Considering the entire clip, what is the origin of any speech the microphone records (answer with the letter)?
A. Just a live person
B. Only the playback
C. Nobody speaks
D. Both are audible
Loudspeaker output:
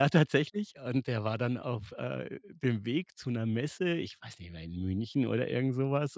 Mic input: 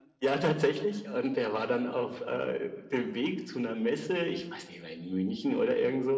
B